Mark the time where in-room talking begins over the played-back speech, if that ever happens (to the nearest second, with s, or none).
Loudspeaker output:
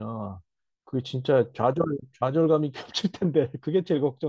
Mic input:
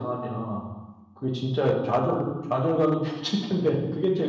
none